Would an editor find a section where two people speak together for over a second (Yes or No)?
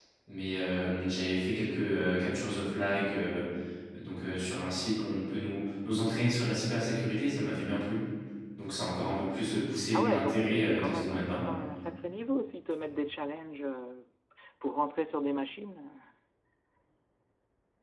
Yes